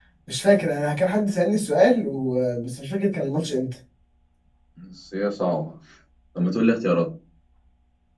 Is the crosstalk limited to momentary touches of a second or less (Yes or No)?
Yes